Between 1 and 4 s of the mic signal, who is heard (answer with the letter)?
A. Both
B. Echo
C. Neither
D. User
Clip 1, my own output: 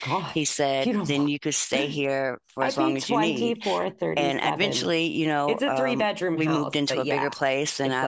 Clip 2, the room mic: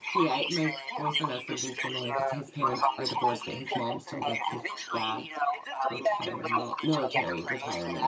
A